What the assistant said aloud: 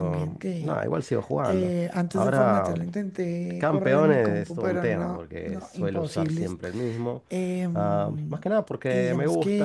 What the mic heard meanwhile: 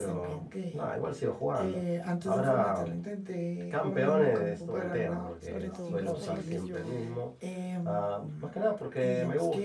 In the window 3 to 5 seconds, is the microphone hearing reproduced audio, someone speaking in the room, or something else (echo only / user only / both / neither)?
echo only